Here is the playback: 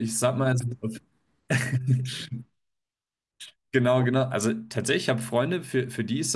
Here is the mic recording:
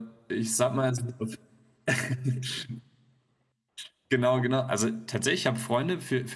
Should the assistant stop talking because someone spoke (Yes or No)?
No